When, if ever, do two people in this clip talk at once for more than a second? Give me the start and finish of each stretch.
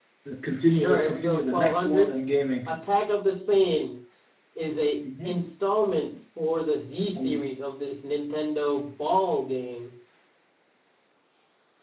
0.7-2.1

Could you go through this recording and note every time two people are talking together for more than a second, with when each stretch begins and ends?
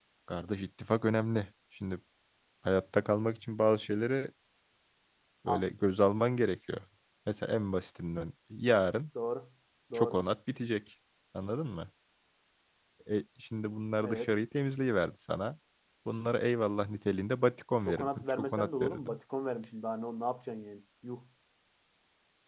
17.9-19.2

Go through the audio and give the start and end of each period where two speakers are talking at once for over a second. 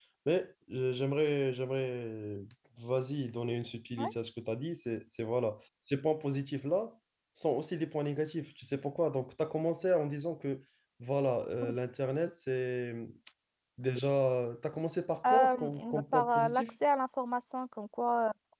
15.2-16.7

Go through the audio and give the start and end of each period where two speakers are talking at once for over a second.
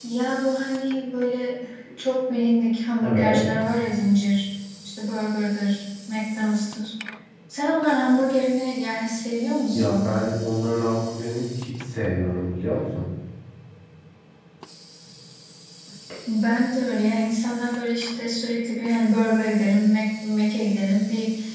none

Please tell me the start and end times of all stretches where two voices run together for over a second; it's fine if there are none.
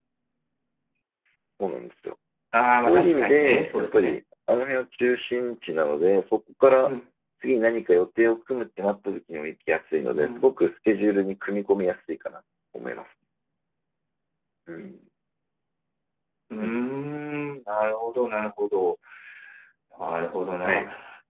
2.8-4.2

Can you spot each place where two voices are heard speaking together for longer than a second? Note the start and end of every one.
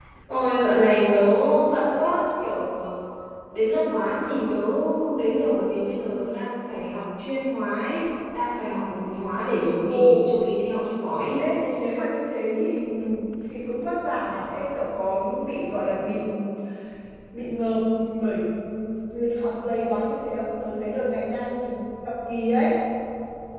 none

